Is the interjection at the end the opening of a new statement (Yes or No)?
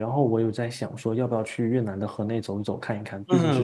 Yes